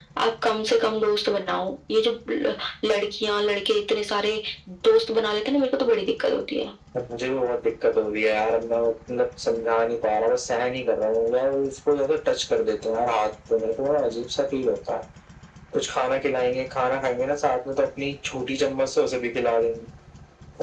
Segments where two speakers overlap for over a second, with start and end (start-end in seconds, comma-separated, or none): none